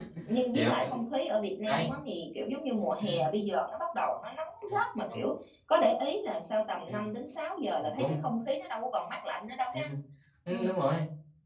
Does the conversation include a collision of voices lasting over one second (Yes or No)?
No